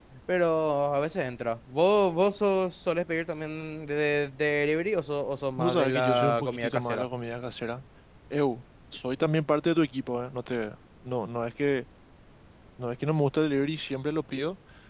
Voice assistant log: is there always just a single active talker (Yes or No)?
No